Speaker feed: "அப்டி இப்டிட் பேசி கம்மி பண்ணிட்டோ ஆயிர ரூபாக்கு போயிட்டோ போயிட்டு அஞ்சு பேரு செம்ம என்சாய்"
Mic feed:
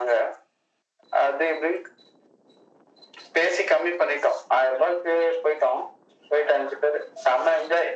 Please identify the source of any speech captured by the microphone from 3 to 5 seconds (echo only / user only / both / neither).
echo only